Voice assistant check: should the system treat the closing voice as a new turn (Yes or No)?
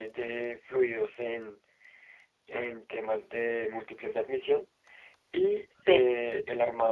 No